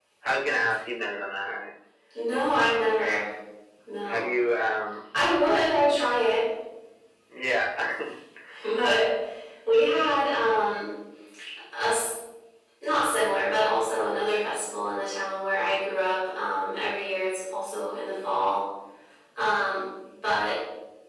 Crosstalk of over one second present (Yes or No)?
No